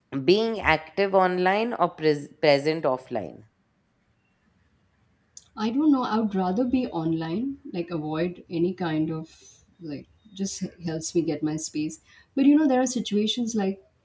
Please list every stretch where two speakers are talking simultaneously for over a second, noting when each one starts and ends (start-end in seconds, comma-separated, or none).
none